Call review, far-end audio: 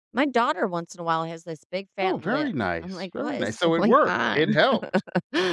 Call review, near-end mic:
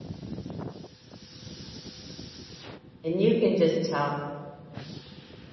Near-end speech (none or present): present